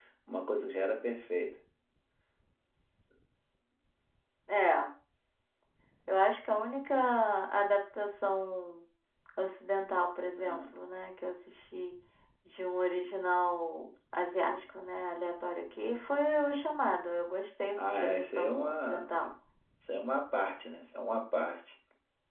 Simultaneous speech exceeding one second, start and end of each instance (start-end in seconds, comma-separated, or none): 17.8-19.1